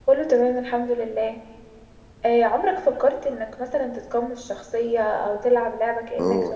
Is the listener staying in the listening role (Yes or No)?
No